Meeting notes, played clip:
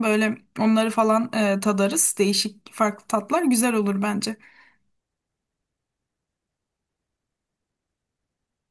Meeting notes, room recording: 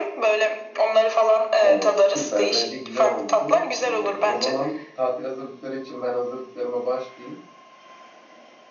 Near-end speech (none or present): present